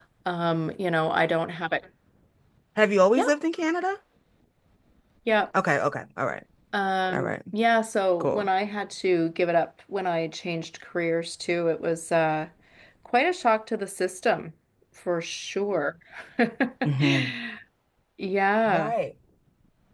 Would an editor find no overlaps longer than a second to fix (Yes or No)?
Yes